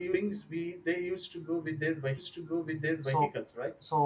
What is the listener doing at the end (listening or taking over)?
taking over